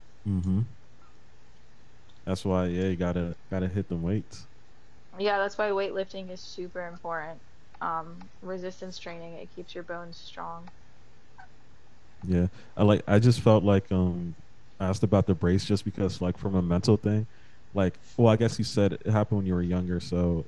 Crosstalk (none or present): none